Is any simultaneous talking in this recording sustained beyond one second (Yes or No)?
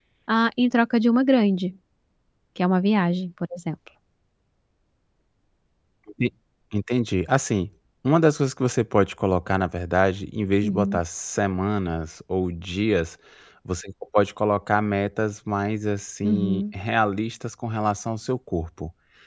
No